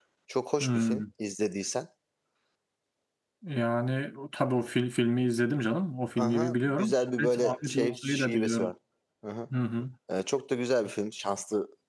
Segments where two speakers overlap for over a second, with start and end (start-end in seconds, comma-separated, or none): 6.2-8.7